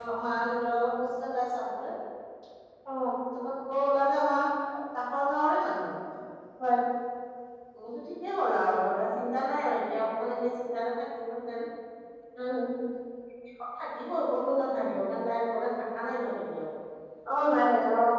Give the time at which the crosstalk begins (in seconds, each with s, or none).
none